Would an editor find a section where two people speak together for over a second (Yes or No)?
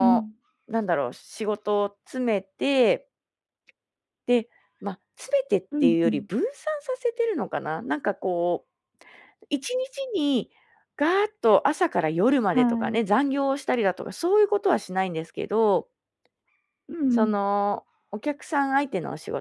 No